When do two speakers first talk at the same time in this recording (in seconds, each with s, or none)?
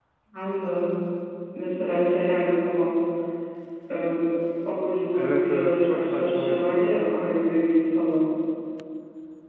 5.1 s